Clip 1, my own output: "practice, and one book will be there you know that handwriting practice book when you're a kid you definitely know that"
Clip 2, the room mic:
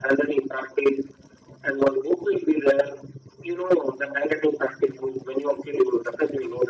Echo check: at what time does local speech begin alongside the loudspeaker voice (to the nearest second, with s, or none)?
none